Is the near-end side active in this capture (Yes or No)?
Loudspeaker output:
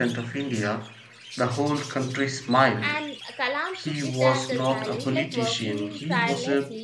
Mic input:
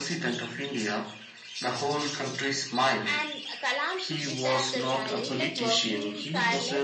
No